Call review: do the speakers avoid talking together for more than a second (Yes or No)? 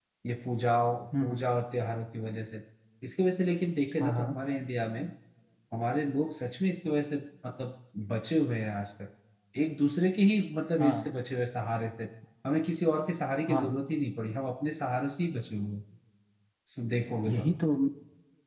Yes